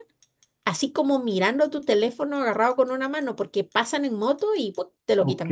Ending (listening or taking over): taking over